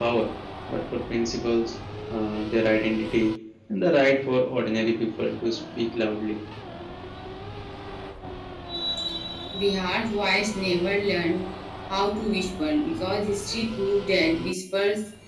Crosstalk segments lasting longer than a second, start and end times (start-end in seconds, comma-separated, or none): none